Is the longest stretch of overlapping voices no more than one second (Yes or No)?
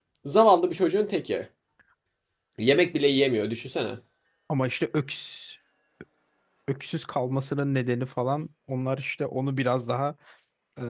Yes